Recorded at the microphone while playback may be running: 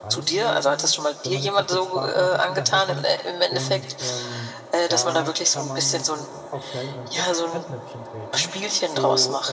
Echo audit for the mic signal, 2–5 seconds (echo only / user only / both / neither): both